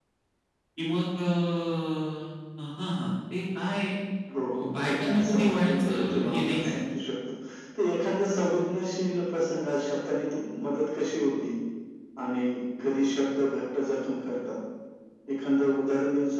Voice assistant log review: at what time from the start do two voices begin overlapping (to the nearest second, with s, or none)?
5 s